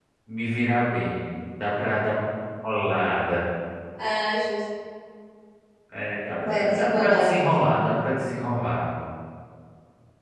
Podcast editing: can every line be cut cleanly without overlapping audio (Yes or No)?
No